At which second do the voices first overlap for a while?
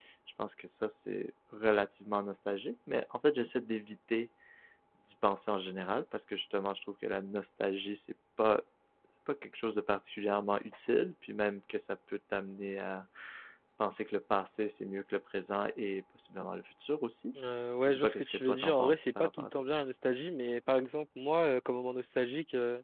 18 s

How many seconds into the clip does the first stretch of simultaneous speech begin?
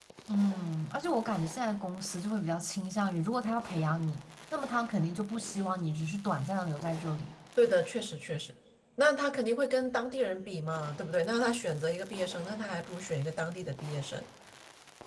none

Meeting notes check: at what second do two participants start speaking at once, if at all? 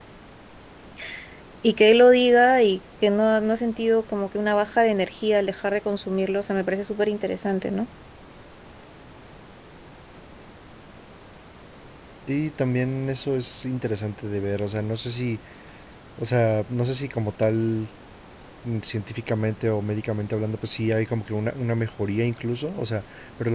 none

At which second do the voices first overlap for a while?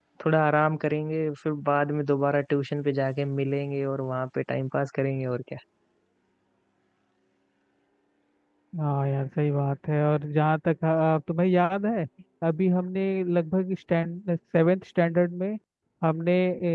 none

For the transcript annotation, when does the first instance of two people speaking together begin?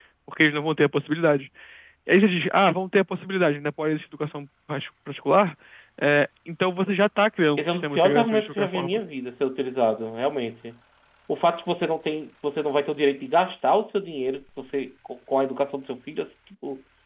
8 s

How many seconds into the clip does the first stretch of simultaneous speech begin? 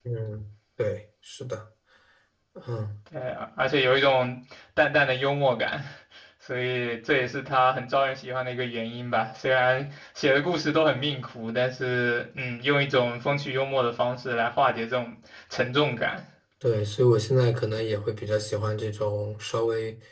none

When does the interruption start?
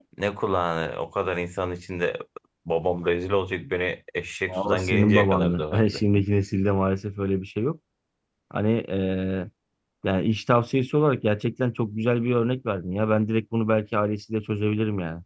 4 s

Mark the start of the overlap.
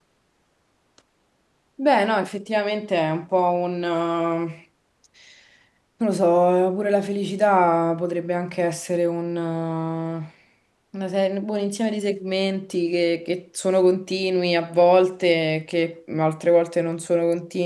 none

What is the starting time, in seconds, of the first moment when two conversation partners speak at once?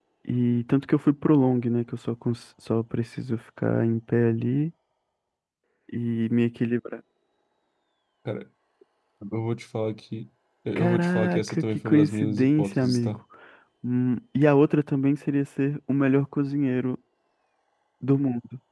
11 s

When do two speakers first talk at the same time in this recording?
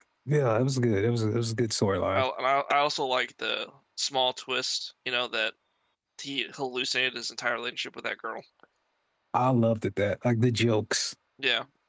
none

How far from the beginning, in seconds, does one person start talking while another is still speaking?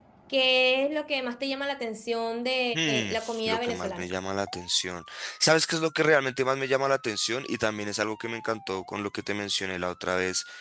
3 s

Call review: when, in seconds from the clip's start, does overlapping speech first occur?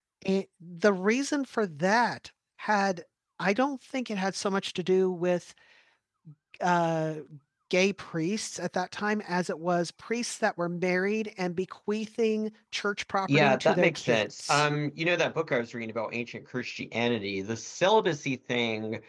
13 s

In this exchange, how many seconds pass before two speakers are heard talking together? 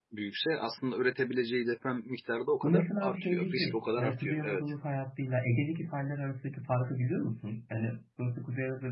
3 s

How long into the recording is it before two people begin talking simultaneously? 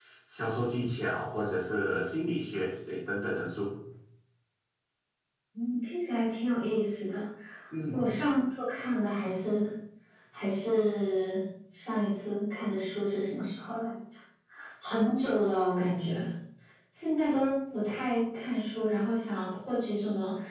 none

